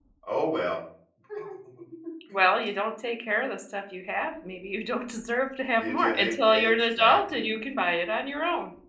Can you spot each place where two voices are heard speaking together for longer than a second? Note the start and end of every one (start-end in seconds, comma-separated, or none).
5.8-7.4